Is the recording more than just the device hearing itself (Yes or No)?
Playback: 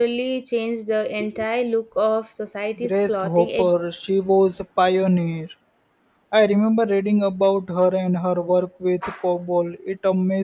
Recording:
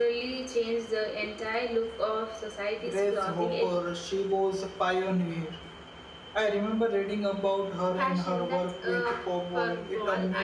Yes